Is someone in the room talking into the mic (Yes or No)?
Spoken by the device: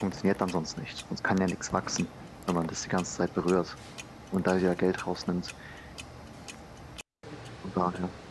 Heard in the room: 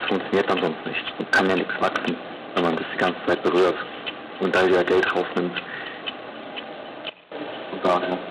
No